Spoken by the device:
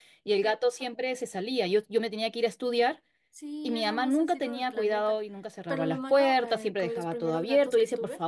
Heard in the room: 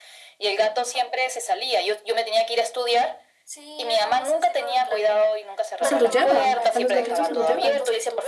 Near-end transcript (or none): O sea, los llevan, a los gatitos se los llevan.